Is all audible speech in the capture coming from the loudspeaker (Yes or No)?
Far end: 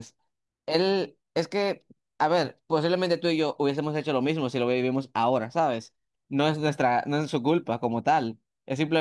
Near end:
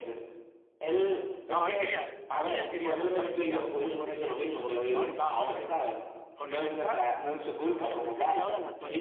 No